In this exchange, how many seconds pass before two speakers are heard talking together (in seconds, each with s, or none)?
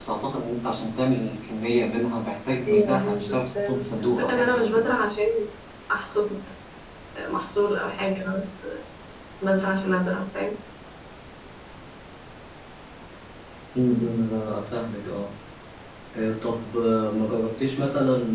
2.6 s